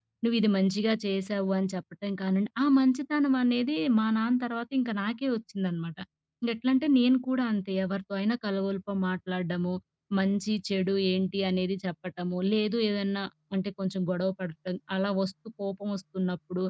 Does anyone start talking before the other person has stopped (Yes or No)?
No